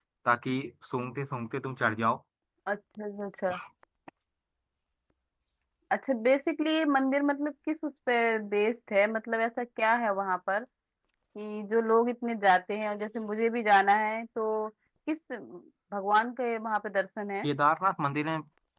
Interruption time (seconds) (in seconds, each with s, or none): none